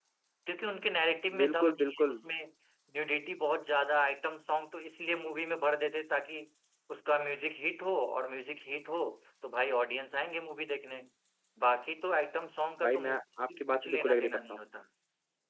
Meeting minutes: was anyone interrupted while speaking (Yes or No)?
Yes